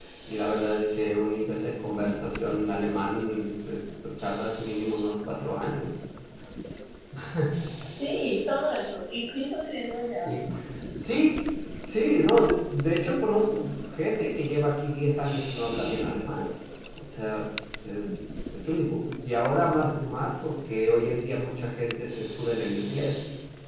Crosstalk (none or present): none